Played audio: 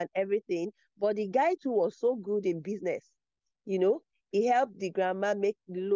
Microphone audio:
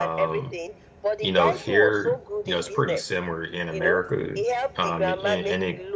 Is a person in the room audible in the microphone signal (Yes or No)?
Yes